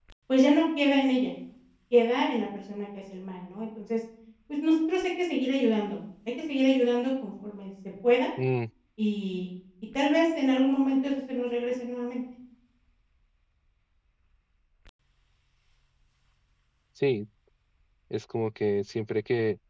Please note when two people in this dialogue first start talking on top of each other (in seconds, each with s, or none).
none